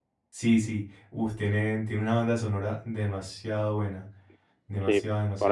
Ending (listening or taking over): taking over